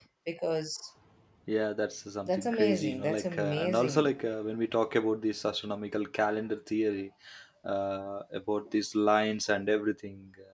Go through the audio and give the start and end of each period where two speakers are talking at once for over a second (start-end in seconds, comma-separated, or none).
2.3-4.1